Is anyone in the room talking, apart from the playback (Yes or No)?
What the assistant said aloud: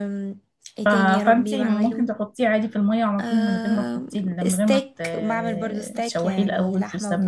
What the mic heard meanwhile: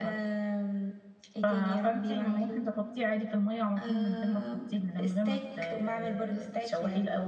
No